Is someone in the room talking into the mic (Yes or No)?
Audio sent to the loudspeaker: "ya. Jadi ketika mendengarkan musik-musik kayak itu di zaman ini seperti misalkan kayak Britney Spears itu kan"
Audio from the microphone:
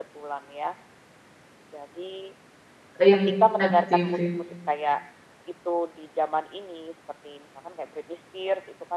Yes